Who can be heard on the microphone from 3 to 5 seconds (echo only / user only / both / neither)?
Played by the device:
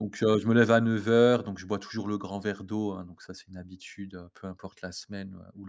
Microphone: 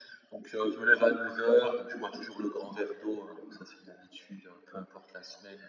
echo only